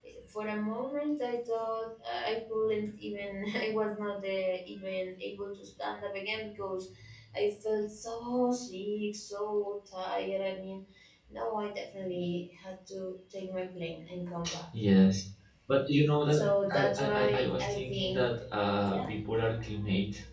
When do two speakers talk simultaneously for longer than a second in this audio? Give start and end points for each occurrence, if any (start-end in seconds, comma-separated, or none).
16.3-18.3